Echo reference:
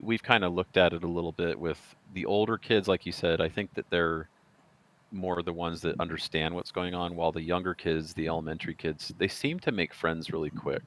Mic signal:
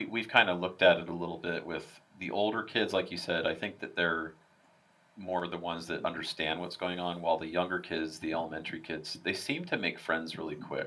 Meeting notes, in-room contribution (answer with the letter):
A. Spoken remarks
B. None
B